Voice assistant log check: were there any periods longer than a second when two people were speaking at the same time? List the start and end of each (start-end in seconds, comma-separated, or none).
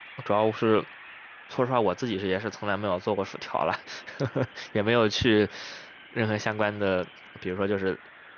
none